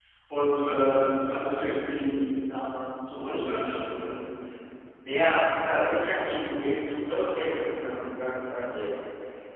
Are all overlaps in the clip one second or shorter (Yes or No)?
Yes